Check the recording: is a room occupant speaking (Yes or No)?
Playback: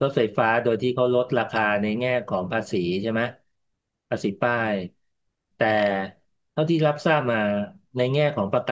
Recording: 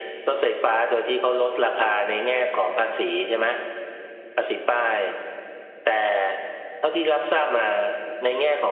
No